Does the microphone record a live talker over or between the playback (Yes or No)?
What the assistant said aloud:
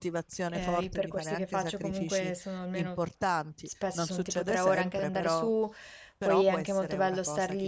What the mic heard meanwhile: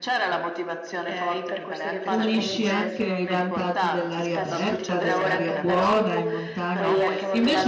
Yes